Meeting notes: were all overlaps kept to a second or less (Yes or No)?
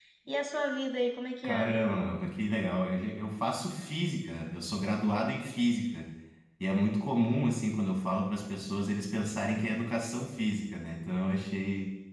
Yes